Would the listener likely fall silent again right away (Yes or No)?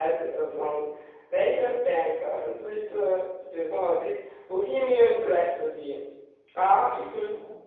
Yes